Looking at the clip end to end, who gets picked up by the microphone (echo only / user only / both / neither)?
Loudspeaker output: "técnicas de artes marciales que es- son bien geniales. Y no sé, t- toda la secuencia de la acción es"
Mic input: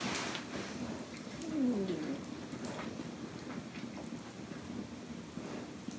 neither